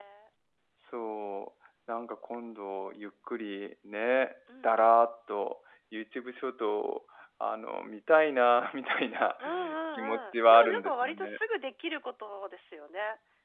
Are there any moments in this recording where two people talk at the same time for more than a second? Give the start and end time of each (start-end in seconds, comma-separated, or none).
9.9-11.3